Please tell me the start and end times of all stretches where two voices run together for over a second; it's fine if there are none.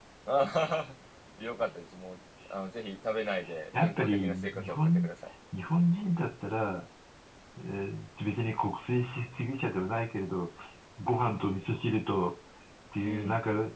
3.8-5.1

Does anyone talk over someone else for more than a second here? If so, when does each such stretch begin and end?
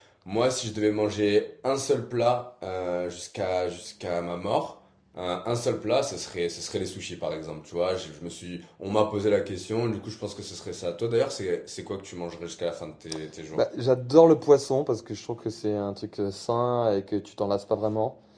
none

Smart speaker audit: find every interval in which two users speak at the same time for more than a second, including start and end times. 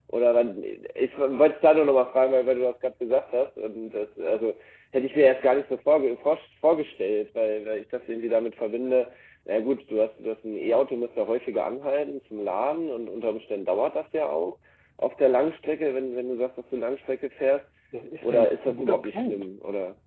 18.2-19.4

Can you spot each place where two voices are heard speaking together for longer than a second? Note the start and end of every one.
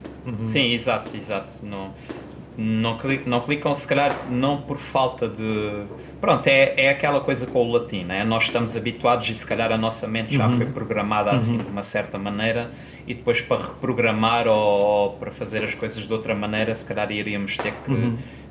none

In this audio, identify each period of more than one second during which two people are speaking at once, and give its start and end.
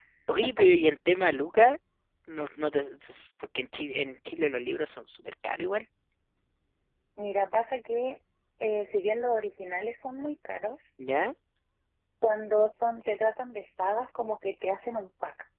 none

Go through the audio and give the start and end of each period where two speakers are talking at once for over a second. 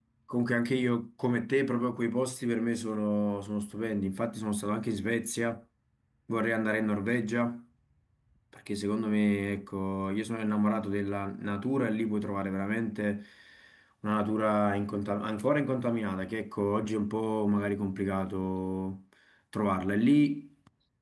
none

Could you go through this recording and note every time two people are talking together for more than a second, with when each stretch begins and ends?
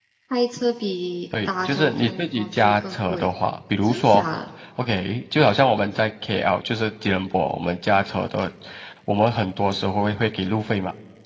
1.5-3.3

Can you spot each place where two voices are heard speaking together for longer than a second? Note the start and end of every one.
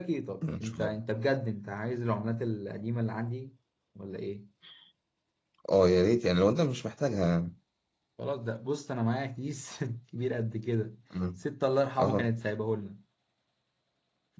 none

